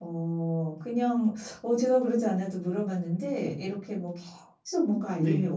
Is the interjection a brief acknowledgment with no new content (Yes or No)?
Yes